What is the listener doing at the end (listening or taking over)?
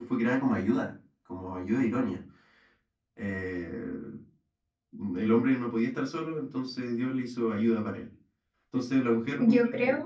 listening